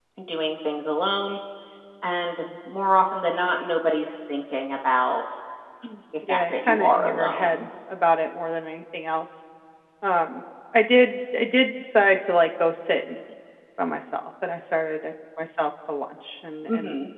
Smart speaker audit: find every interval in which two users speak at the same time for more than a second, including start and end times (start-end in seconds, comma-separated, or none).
6.3-7.7